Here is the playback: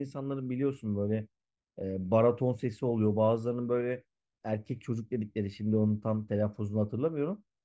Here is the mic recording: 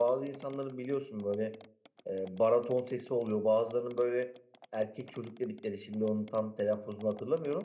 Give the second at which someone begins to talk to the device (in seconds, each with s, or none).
none